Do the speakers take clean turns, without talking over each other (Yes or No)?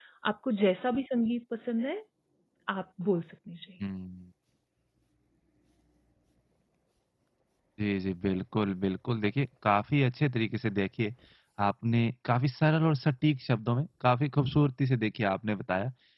Yes